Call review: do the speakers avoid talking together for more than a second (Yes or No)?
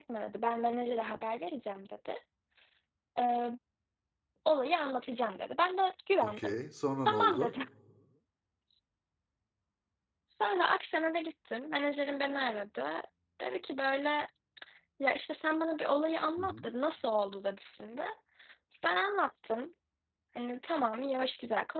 Yes